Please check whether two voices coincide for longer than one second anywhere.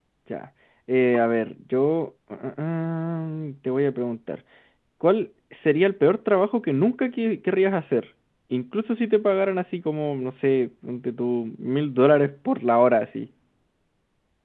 No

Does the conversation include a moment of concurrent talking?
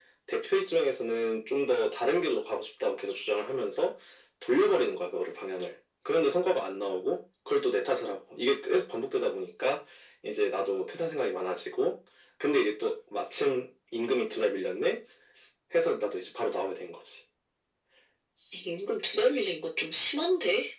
No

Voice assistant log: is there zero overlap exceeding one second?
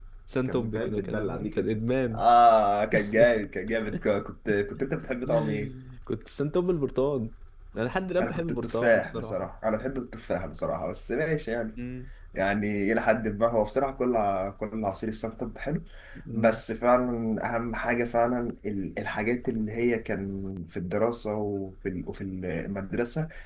No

